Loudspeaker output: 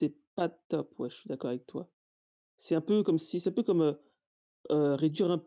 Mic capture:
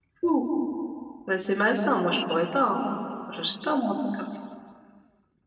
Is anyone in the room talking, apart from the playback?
Yes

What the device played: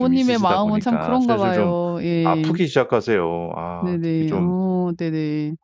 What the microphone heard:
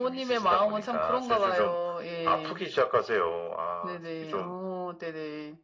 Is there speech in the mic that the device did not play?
No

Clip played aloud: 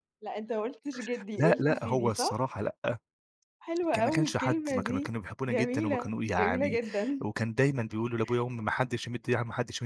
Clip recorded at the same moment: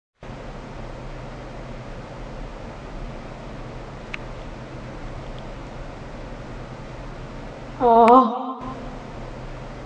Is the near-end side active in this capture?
Yes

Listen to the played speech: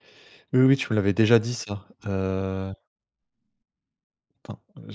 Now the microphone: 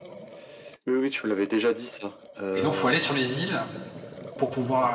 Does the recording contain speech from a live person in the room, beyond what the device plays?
Yes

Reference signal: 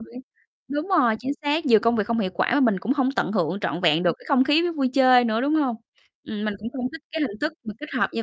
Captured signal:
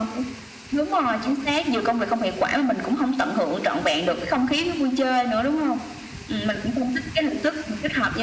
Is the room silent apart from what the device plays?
Yes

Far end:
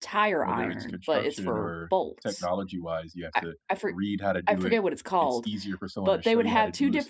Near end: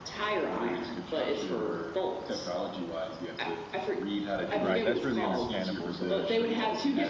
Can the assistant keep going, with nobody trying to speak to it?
No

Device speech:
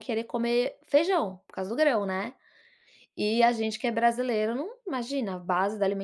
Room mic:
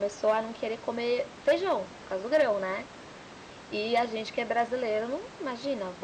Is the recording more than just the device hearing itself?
No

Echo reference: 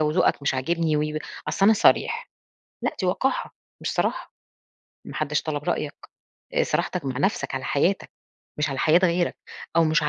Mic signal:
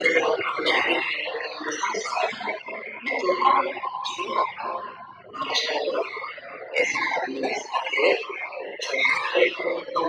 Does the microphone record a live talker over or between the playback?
No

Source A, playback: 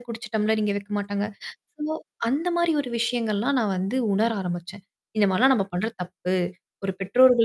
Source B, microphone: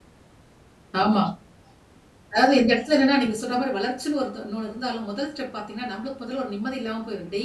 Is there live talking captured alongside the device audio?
Yes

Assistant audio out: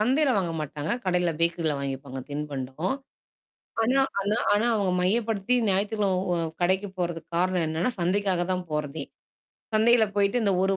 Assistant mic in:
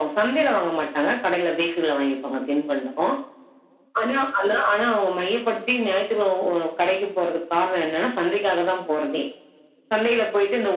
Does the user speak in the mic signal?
No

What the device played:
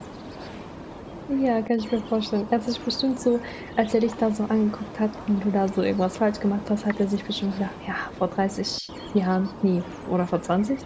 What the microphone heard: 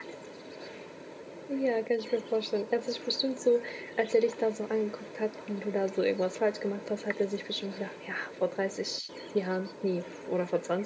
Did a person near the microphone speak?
No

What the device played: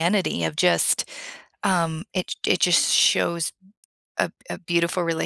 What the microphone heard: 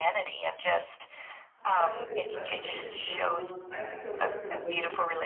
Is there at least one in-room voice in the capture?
Yes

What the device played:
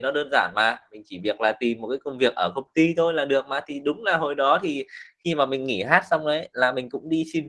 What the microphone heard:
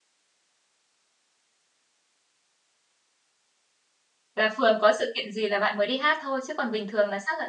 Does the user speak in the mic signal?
Yes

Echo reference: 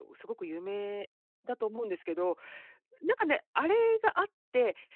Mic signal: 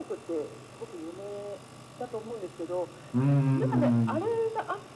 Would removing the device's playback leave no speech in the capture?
No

